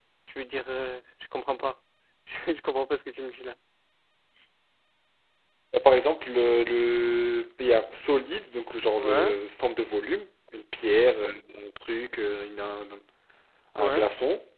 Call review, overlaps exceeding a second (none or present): none